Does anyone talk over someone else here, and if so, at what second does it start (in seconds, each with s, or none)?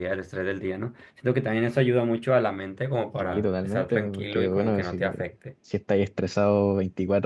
3.2 s